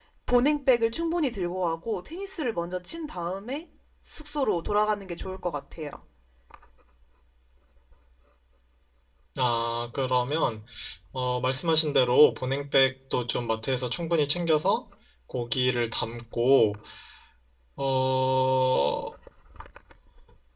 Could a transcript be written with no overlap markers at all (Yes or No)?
Yes